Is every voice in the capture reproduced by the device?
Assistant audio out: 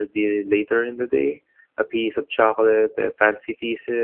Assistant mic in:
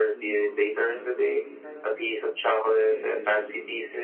No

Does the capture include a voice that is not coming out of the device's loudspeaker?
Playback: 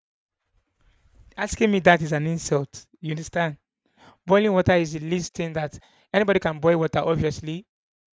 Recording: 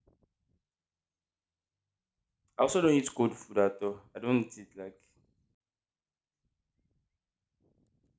Yes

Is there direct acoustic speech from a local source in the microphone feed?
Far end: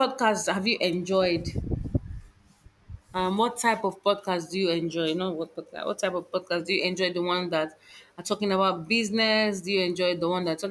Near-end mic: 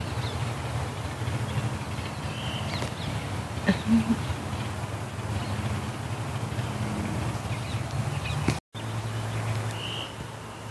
No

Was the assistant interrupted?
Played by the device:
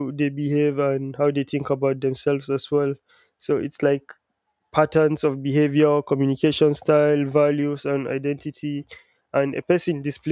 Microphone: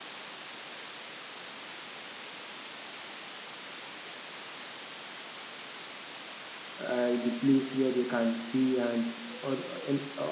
Yes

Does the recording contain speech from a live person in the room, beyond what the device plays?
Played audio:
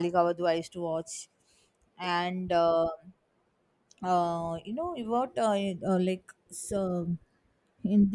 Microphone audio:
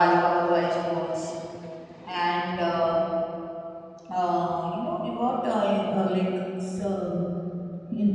No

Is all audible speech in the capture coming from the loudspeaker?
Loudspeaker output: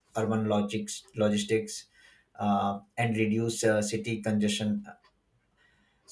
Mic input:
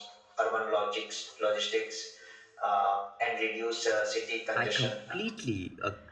No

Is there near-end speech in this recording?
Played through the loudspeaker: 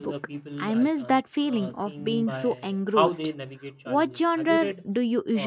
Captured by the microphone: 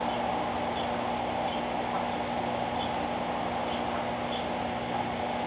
No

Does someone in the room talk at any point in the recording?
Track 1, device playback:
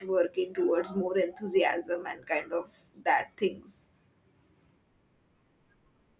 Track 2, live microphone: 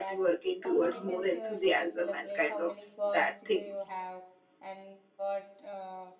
Yes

